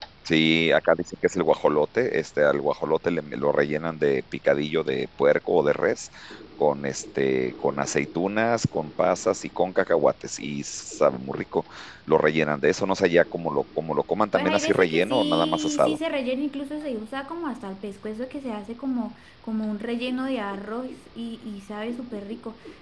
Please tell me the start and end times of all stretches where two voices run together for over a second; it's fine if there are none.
14.3-16.0

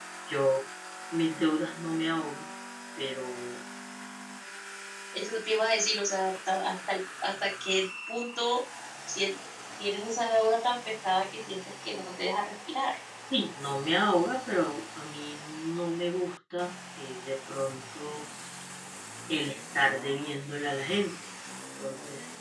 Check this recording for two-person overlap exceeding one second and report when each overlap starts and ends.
none

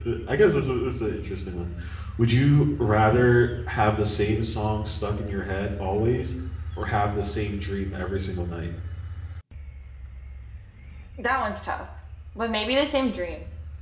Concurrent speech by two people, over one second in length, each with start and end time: none

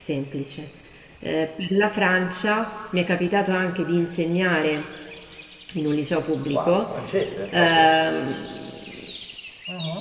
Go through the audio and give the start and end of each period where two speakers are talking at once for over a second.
none

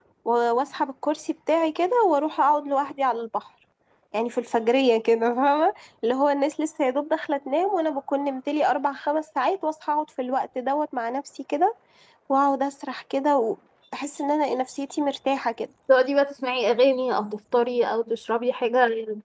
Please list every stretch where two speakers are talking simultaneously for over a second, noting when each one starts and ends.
none

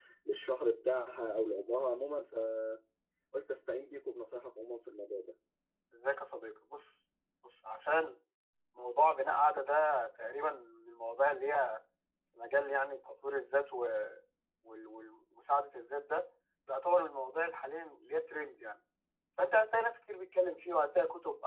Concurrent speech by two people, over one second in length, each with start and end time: none

